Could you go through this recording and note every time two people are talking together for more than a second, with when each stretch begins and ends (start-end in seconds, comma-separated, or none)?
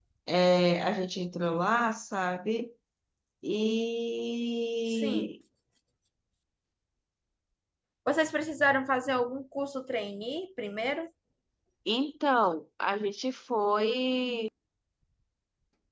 none